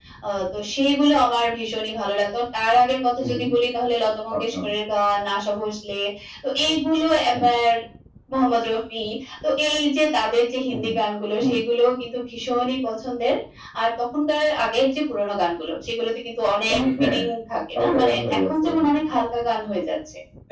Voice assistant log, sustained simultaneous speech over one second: present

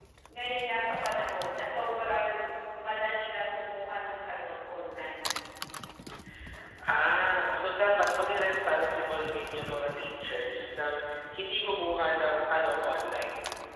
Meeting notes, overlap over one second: none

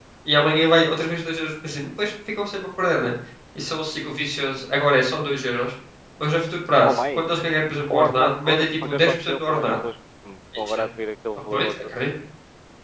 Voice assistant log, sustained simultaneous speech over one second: present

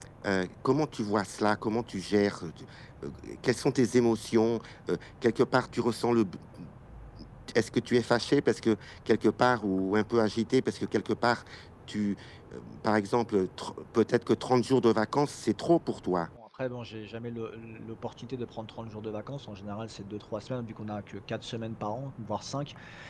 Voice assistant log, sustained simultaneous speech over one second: none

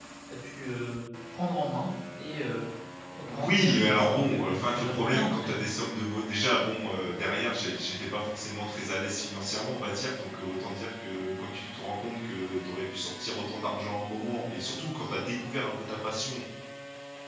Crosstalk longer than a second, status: present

